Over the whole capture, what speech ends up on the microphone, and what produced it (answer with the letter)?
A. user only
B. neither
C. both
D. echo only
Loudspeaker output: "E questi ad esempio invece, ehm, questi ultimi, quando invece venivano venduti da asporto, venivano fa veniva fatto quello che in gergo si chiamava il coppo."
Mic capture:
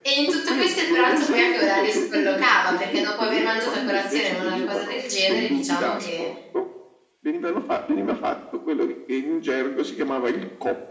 C